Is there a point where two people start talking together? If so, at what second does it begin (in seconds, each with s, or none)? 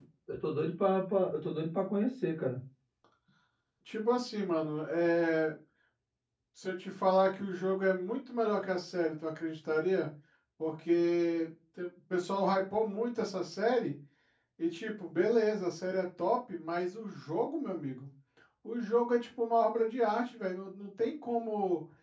none